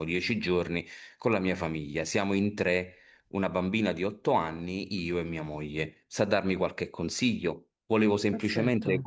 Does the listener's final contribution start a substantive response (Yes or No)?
No